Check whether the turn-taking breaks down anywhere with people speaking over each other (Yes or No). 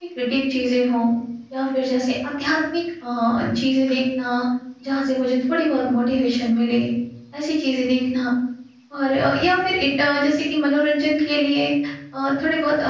No